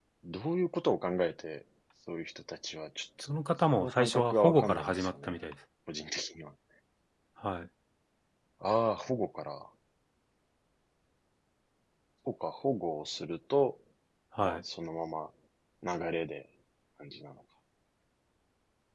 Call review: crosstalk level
present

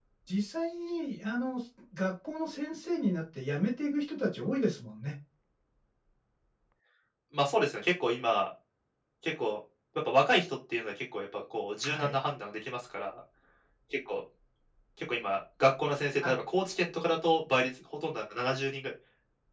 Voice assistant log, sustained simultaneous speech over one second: none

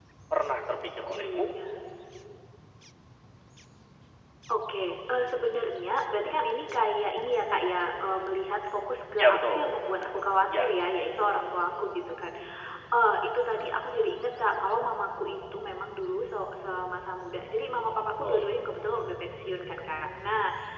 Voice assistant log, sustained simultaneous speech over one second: none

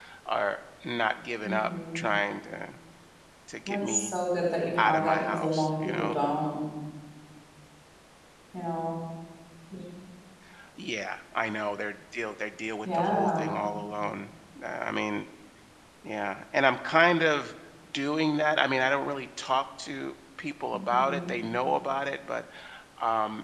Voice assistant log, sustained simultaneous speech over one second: present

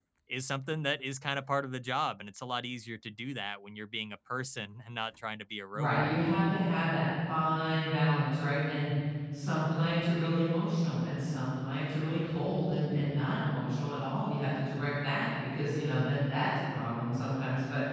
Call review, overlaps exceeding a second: none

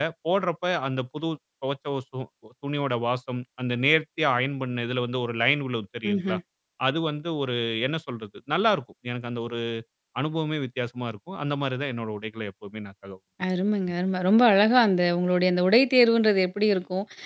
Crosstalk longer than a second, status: none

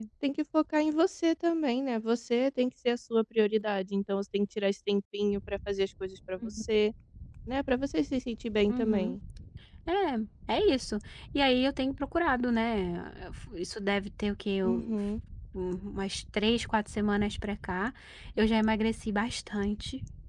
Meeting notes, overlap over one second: none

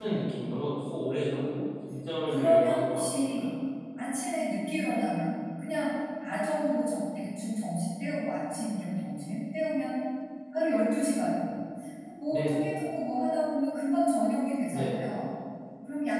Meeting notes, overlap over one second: present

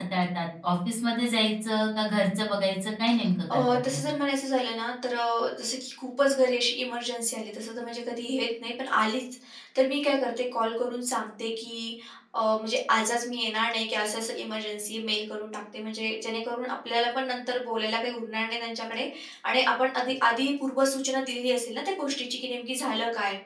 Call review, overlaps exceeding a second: none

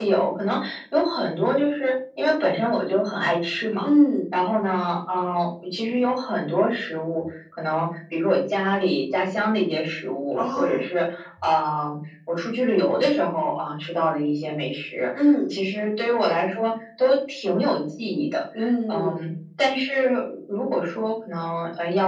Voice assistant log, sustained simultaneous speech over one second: none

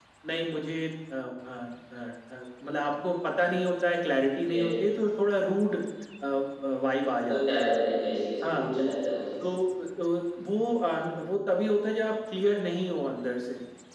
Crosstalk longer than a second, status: none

